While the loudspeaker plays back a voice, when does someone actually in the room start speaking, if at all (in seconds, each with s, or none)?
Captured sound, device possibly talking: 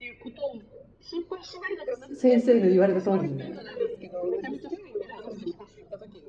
2.1 s